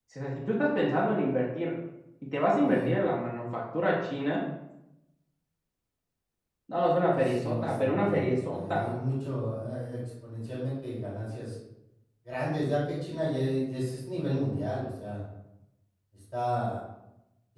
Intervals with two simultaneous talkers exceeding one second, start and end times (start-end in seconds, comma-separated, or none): 7.2-9.0